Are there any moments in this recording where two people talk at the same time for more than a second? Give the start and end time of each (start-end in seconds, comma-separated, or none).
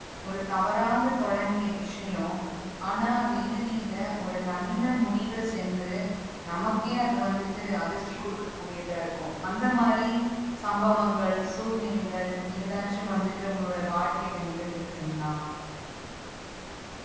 none